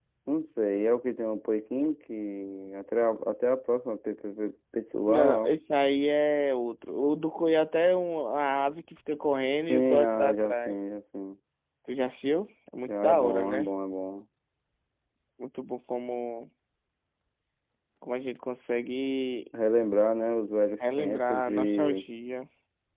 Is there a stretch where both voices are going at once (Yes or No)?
Yes